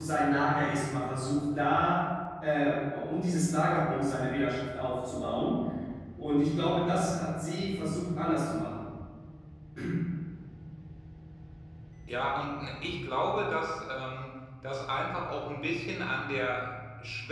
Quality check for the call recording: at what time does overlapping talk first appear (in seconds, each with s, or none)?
none